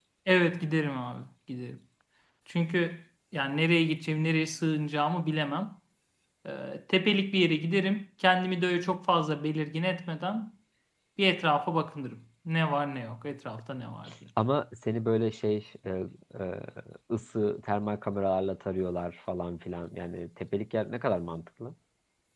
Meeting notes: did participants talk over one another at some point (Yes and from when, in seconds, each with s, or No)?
No